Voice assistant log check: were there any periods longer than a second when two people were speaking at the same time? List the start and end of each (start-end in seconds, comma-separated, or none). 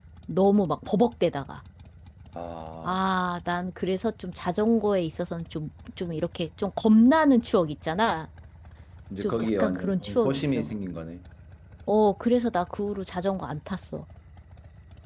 9.2-10.7